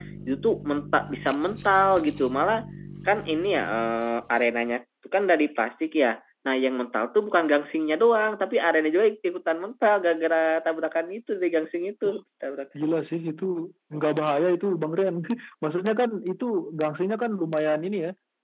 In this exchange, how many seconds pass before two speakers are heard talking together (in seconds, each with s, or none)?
none